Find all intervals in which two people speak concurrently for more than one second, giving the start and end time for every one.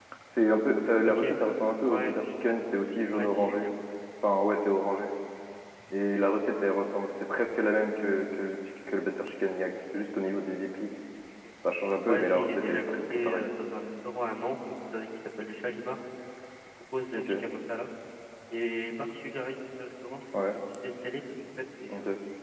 12.1-13.5

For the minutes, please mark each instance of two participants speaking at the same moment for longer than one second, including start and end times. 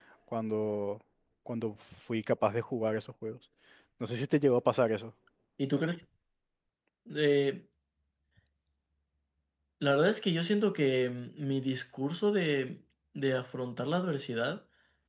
none

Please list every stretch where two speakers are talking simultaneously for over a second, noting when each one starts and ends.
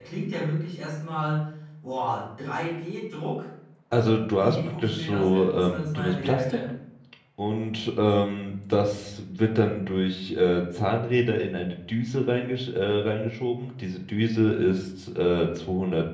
4.4-6.6

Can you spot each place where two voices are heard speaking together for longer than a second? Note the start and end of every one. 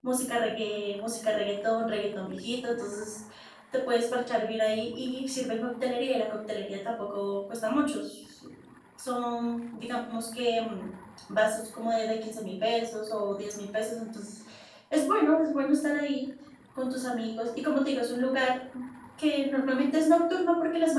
none

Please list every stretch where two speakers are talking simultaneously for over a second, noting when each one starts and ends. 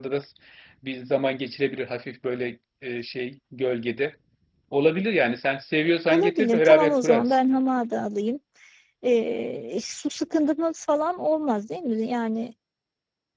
6.1-7.4

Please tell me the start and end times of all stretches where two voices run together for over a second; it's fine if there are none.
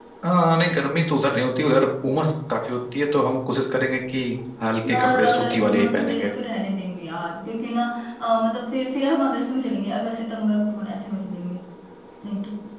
4.9-6.3

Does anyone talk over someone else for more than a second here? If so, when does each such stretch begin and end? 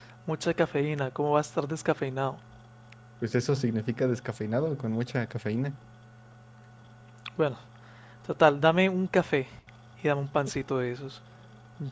none

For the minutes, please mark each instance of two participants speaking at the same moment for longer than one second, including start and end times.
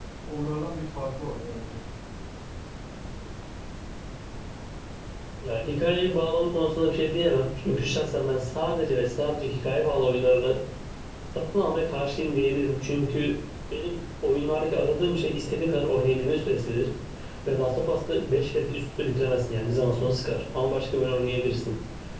none

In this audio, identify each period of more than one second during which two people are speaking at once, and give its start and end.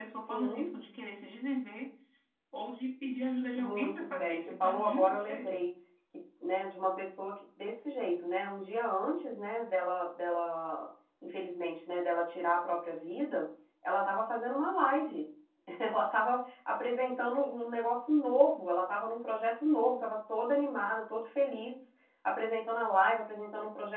3.5-5.7

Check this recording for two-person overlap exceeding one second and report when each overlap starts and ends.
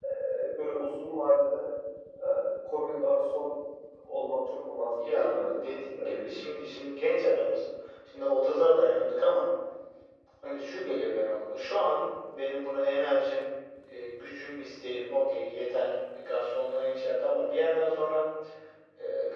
5.1-6.3

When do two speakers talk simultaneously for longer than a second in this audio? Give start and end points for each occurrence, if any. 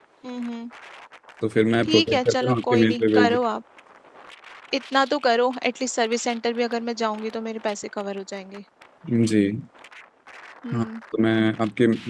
1.8-3.4

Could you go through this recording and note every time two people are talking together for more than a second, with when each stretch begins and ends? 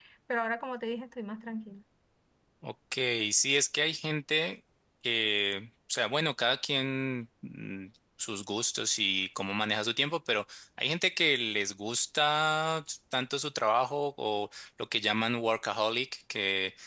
none

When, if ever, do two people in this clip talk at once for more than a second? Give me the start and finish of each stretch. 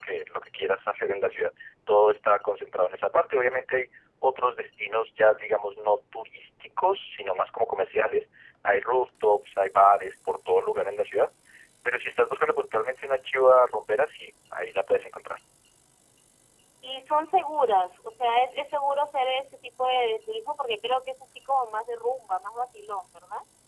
none

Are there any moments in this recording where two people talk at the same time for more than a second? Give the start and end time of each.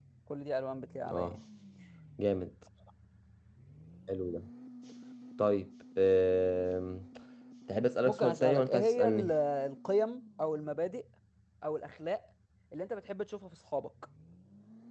8.0-9.3

